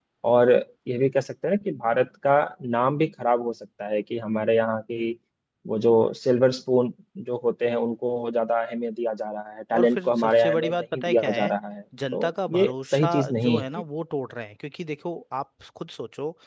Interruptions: present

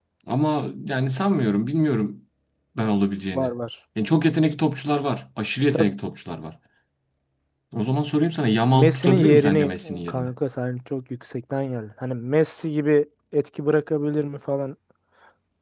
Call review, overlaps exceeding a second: present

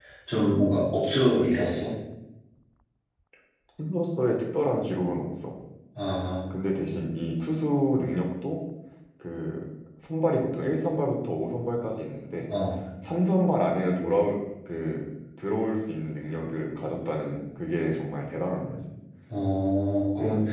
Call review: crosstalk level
none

